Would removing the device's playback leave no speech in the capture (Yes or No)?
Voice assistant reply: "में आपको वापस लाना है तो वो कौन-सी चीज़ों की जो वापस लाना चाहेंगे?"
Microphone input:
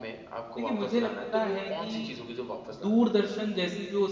No